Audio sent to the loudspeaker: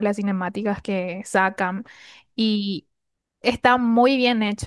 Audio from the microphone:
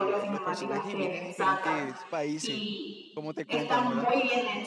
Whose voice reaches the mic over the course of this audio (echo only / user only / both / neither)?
both